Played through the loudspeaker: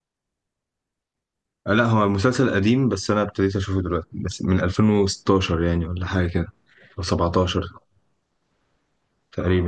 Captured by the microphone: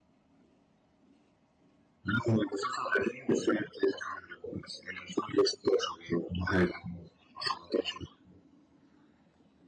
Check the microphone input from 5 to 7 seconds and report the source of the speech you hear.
echo only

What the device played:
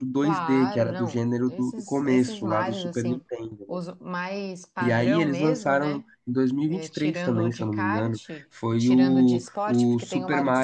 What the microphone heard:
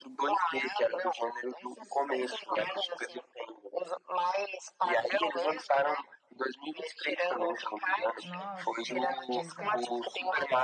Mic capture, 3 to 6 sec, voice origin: echo only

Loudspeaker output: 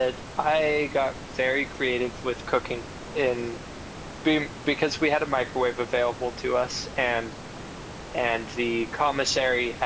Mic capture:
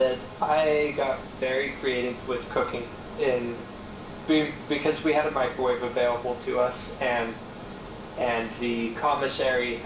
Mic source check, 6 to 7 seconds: echo only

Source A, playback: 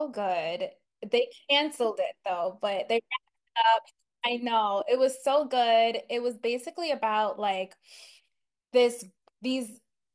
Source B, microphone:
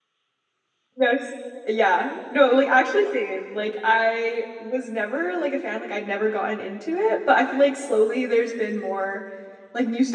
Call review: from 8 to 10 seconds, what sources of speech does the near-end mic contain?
user only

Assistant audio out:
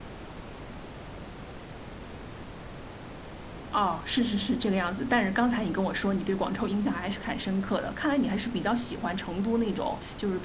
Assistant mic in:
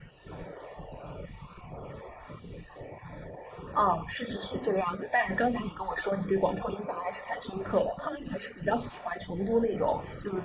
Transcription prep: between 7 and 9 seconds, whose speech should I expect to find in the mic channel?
echo only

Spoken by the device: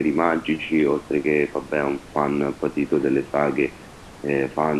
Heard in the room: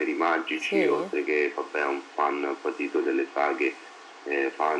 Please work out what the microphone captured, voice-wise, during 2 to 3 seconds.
echo only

